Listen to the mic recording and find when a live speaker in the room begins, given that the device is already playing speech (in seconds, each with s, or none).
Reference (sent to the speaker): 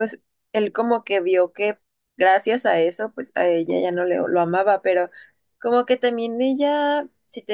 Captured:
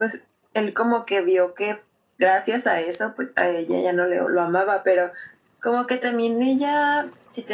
none